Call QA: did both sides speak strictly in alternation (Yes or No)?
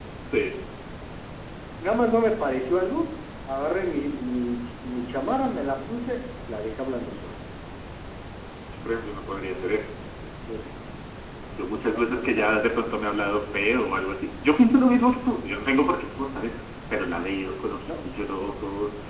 No